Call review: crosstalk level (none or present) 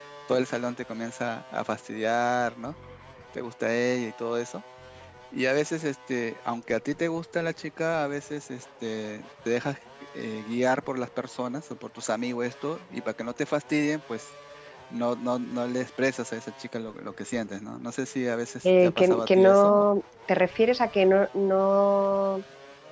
present